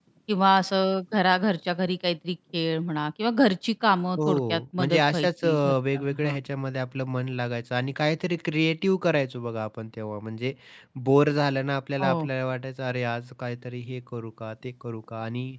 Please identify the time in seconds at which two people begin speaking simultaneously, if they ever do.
4.2 s

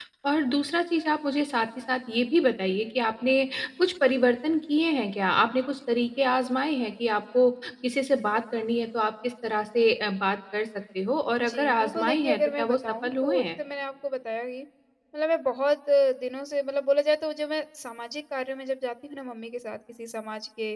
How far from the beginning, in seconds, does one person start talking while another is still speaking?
11.4 s

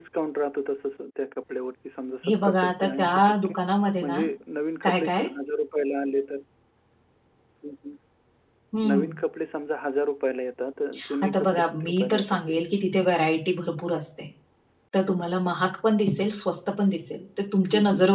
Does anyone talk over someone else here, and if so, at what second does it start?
2.2 s

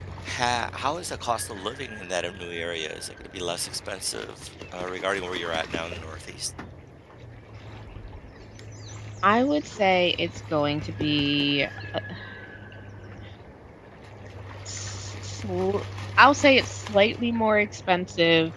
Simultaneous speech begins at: none

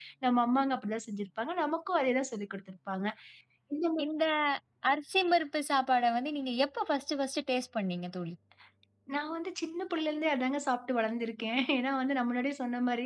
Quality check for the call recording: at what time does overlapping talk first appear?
none

